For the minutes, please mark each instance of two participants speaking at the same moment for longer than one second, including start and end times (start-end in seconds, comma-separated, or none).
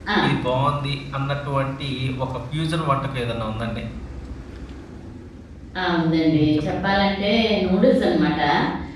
none